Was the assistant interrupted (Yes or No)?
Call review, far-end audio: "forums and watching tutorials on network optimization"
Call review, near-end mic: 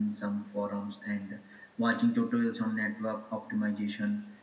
No